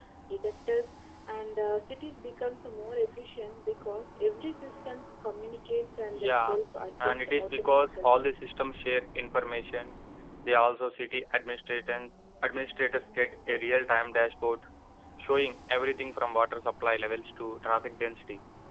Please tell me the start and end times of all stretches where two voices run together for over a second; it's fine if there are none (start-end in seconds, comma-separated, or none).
7.0-8.2